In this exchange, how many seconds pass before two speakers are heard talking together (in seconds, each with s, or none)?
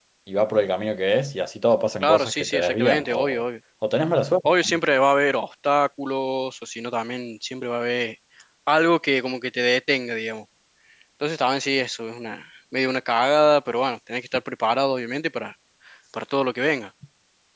2.0 s